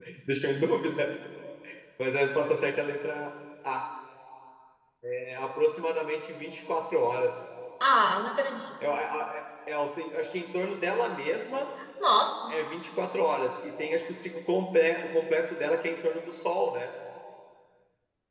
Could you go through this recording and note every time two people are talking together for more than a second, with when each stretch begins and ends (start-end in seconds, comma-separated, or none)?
none